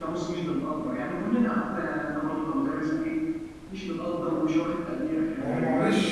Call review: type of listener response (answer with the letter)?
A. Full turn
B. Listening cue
A